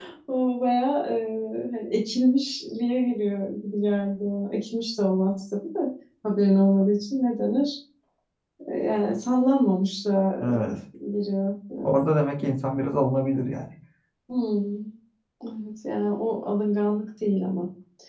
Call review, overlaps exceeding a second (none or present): none